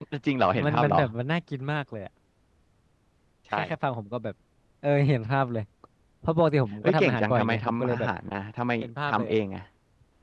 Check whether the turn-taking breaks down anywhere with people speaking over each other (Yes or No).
Yes